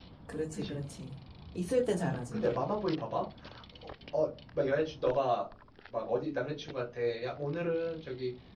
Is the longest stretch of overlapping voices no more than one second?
Yes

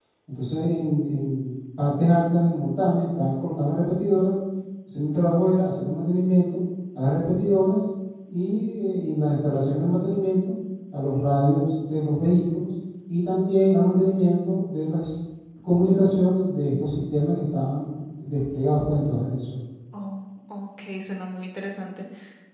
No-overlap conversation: Yes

